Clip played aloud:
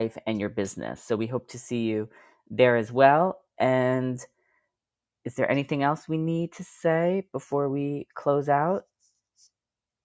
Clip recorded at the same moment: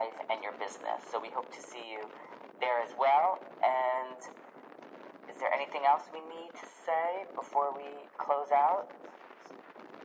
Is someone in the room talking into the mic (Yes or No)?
No